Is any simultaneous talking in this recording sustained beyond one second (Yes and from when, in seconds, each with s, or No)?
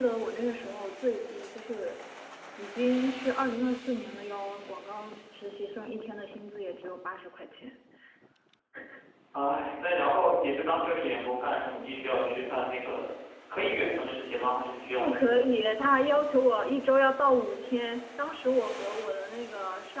No